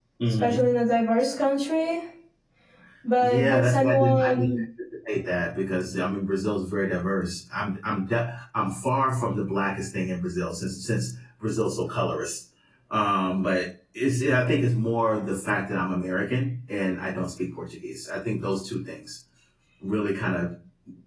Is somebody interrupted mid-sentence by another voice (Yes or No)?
Yes